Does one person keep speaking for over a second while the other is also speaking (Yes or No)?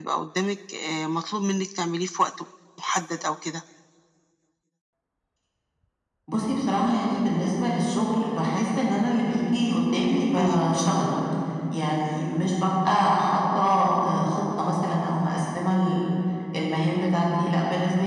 No